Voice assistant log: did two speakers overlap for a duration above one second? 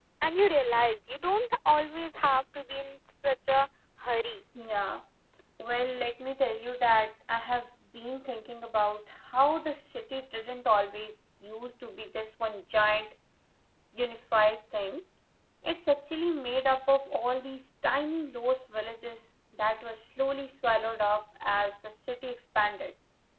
No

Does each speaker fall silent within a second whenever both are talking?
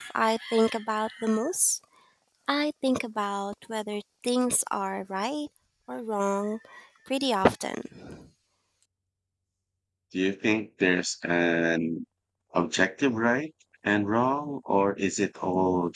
Yes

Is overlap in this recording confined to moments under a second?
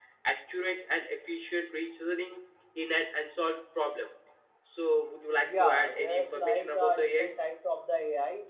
No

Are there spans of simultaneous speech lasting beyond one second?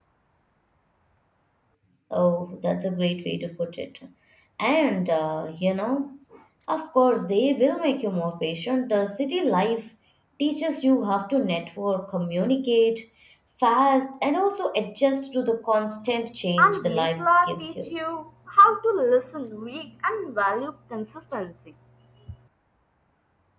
Yes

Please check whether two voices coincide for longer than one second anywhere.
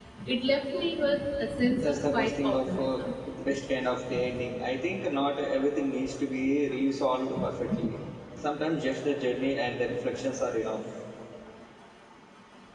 Yes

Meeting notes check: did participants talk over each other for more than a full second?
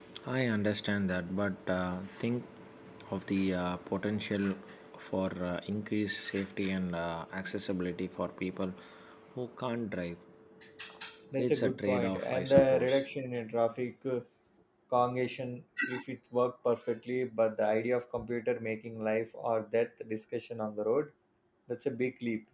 Yes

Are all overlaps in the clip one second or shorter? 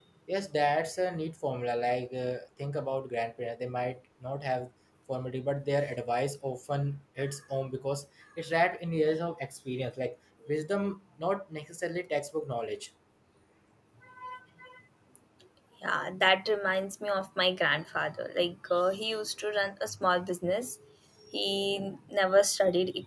Yes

